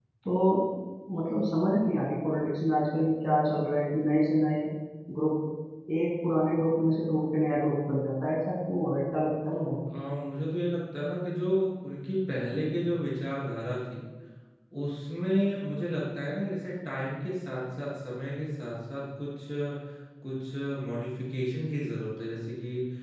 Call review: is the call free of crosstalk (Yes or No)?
Yes